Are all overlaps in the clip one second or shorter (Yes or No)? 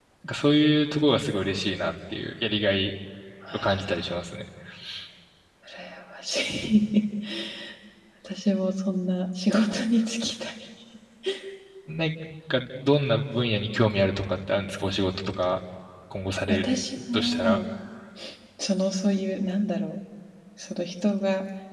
Yes